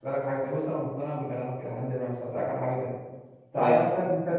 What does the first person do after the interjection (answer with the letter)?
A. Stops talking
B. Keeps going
B